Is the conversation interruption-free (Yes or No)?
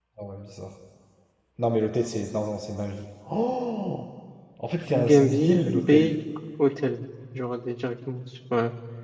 No